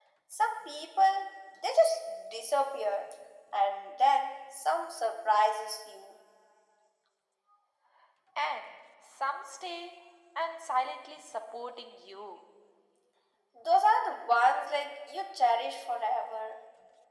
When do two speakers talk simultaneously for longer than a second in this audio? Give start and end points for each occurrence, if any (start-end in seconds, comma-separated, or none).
none